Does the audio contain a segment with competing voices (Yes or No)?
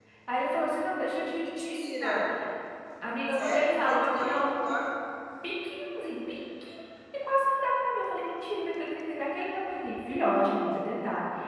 Yes